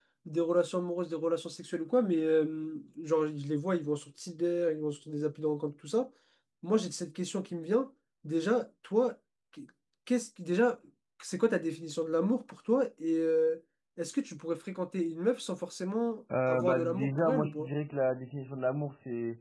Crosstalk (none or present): present